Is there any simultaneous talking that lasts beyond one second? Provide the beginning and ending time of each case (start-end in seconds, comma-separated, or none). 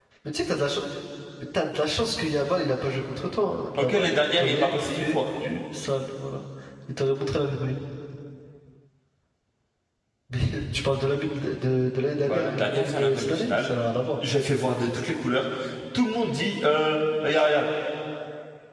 3.8-5.2, 12.3-13.7